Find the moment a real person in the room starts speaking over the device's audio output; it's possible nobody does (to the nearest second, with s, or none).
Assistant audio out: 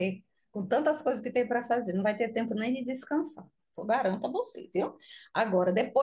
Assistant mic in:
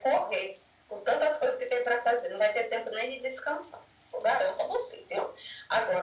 none